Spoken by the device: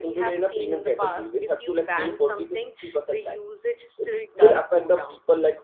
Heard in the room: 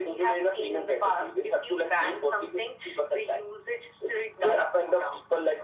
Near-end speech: none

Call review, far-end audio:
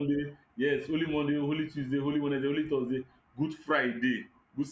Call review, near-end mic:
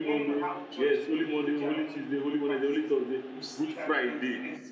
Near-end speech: present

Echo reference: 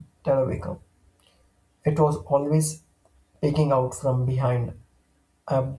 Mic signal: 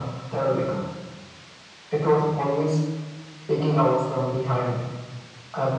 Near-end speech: none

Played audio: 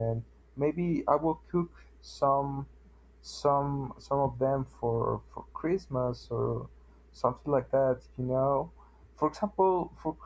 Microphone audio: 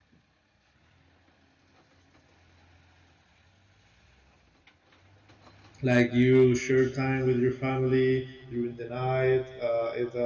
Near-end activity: present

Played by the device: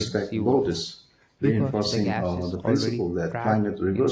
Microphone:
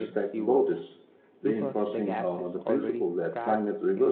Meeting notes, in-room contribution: none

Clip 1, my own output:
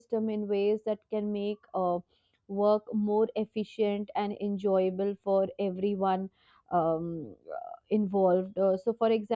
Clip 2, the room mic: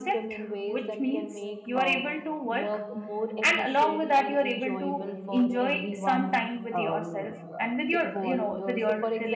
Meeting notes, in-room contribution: present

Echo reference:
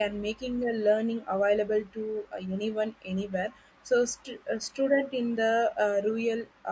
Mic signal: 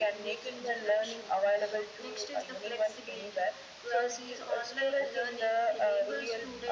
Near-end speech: present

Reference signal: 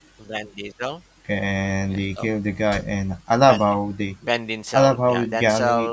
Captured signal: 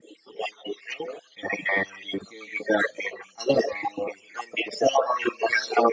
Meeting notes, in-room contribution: none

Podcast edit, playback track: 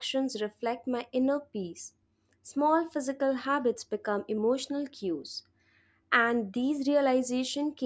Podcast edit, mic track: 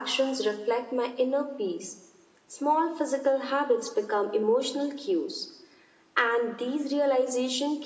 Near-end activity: none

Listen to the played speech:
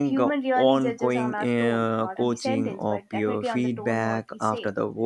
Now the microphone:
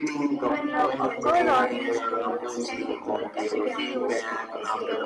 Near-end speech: present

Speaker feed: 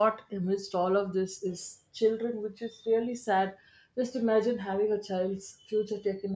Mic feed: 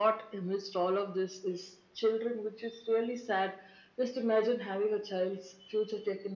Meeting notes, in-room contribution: none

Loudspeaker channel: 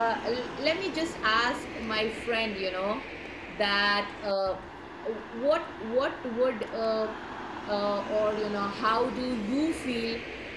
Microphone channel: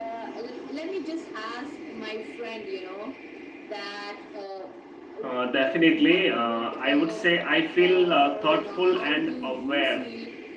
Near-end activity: present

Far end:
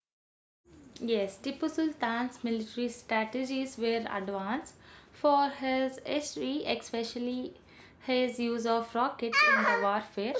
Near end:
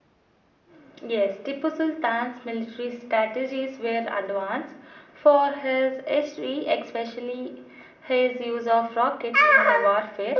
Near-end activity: none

